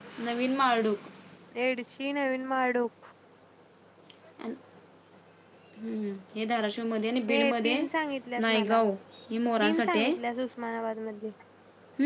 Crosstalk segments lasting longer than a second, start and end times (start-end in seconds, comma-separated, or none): none